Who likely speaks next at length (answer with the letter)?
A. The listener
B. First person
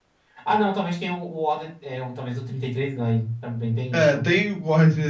A